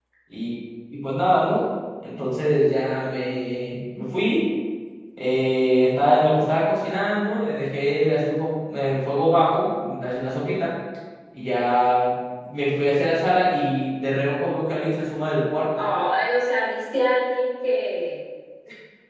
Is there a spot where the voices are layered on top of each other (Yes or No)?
No